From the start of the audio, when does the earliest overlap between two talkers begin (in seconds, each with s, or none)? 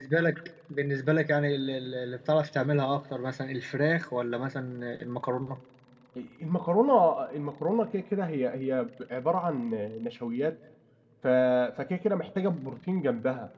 none